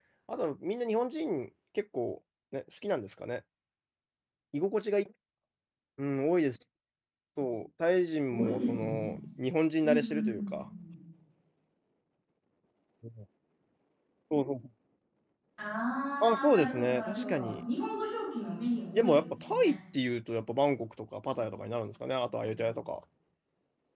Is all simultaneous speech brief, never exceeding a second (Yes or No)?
No